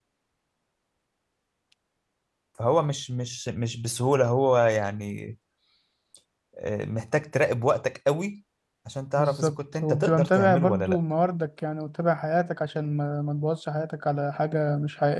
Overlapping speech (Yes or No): Yes